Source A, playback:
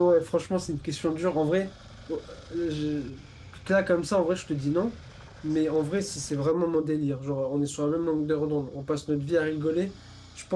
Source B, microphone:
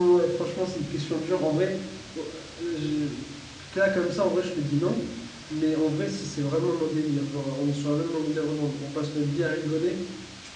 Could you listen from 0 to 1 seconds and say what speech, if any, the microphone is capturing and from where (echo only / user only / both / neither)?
echo only